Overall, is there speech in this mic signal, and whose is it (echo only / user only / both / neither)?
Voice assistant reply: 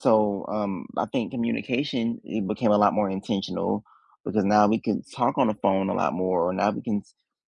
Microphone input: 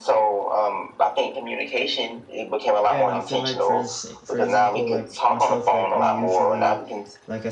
both